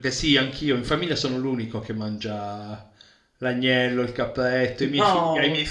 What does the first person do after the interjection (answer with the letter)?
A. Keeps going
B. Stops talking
A